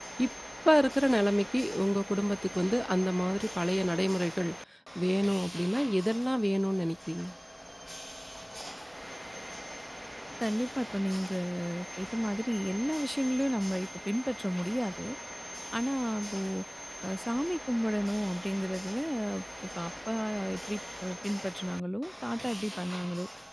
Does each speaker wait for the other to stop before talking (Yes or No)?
Yes